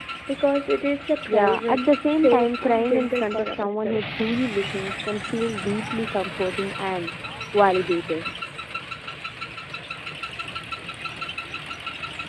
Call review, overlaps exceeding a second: present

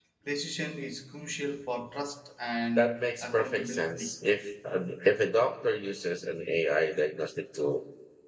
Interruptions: present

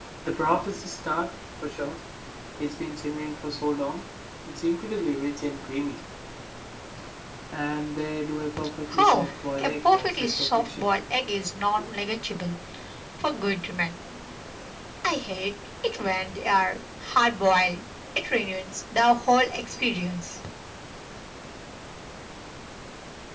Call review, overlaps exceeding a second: present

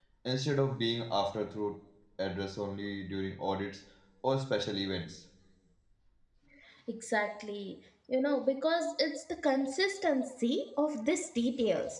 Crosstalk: none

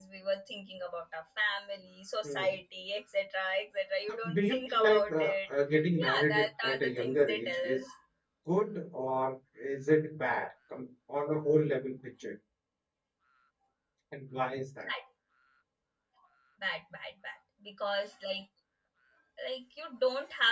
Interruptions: present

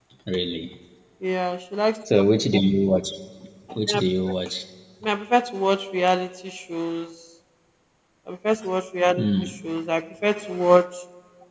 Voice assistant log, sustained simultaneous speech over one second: none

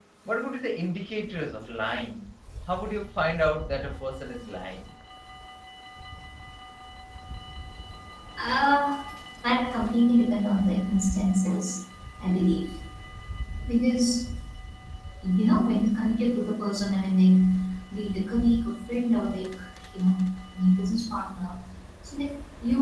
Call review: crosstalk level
none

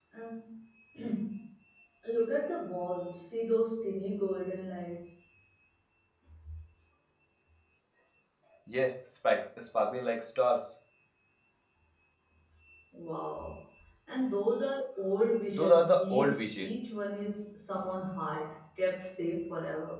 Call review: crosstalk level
present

